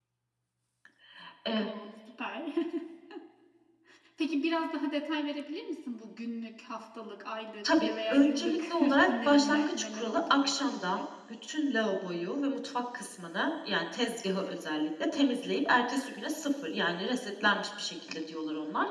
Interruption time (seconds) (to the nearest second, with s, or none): 8 s